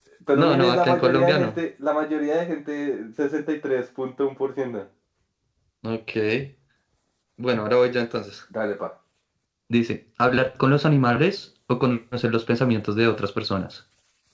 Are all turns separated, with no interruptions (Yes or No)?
No